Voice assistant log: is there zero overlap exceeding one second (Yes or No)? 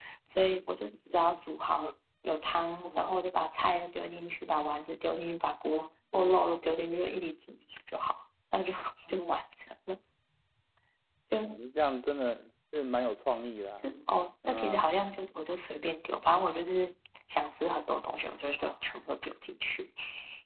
Yes